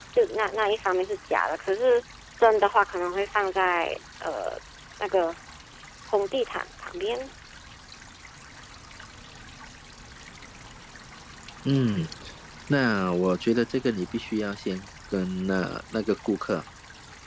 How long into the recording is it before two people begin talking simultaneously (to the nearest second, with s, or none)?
none